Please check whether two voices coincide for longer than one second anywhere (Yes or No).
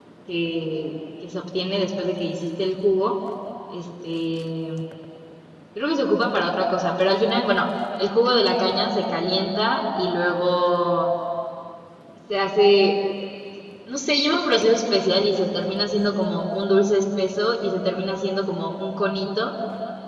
No